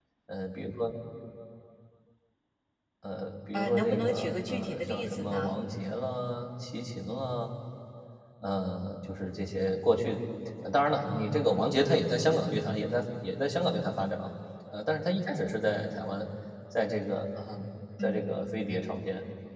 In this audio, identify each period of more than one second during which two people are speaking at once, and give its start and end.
3.5-5.5

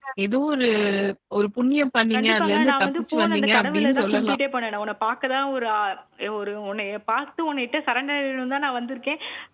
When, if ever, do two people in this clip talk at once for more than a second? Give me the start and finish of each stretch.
2.1-4.4

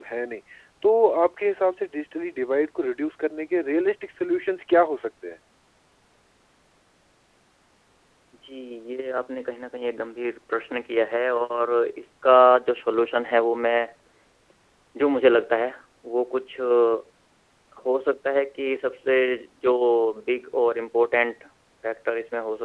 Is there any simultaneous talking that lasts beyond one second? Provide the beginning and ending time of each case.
none

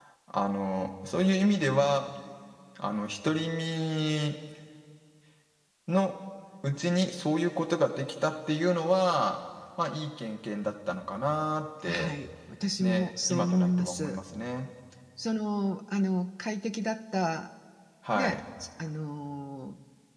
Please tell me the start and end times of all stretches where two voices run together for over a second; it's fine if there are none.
12.8-14.2

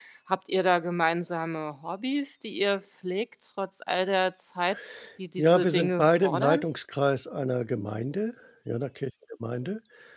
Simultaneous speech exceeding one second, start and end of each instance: 5.4-6.6

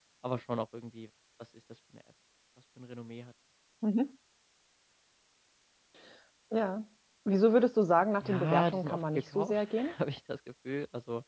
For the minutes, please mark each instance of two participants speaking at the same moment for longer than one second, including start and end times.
8.2-9.9

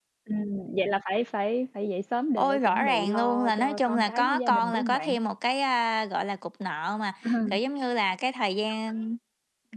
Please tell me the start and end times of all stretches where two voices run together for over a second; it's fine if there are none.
2.4-5.2

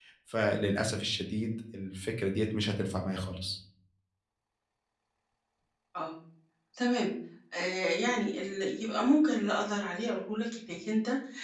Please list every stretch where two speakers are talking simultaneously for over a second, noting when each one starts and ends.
none

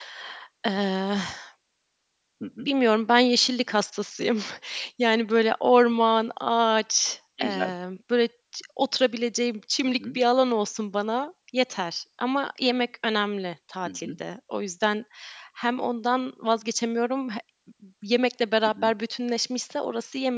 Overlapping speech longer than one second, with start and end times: none

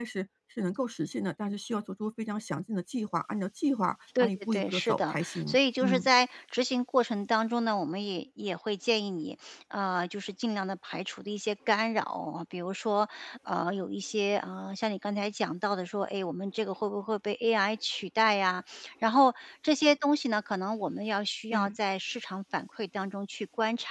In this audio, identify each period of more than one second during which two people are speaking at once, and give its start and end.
4.2-6.1

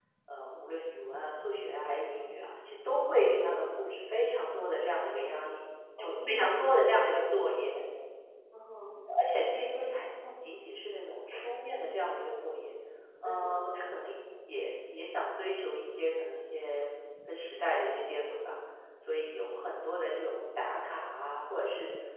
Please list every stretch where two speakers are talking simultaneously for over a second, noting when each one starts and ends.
6.0-7.2

